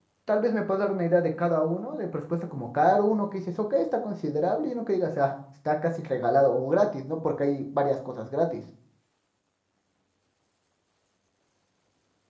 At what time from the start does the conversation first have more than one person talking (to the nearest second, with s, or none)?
none